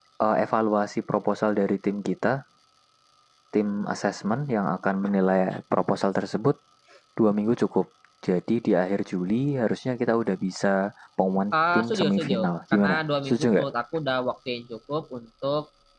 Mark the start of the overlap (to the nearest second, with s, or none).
12 s